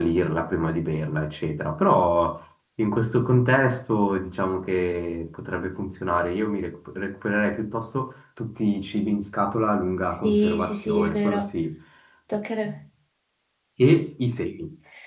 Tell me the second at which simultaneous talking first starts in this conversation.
10.1 s

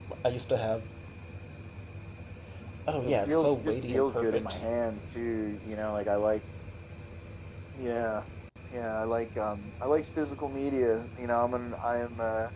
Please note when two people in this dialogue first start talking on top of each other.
3.0 s

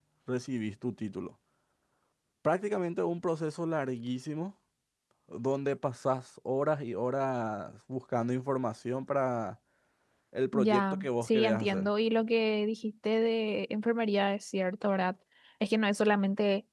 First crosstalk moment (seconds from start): 10.6 s

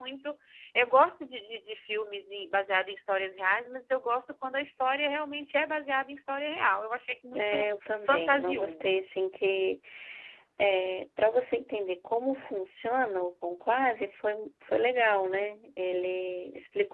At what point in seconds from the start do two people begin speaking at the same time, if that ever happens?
7.3 s

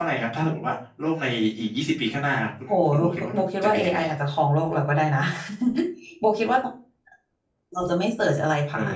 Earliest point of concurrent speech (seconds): 2.7 s

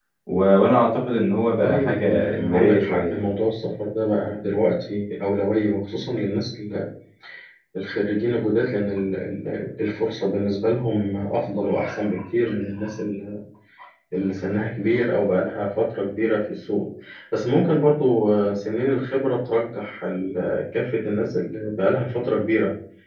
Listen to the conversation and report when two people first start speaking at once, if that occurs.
1.6 s

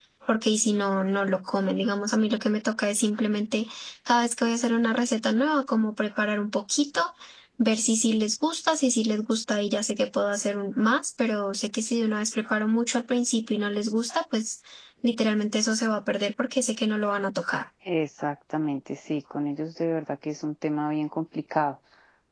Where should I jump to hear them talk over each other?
none

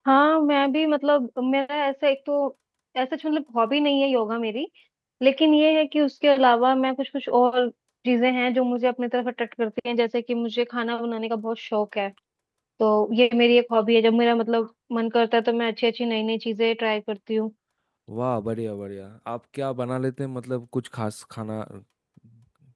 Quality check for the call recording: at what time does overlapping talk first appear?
none

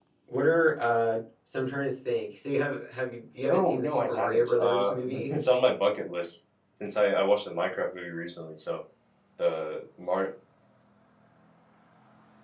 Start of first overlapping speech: 3.5 s

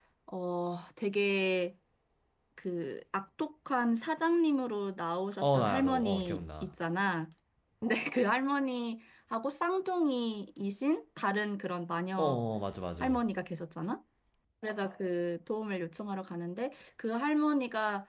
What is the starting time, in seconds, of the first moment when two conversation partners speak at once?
5.4 s

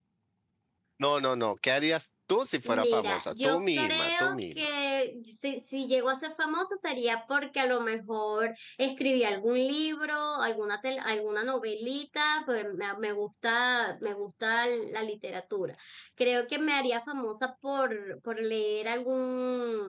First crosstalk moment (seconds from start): 2.6 s

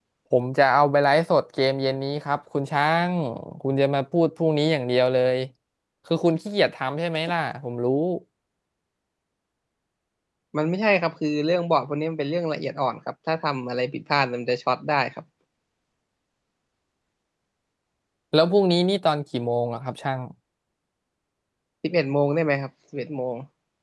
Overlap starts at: none

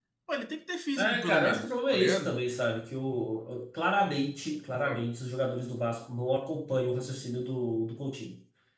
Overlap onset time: 1.0 s

